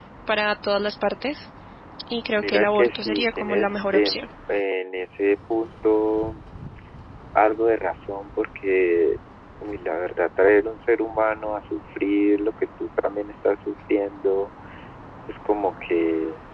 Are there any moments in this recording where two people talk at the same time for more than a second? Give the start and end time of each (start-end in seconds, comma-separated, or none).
2.4-4.2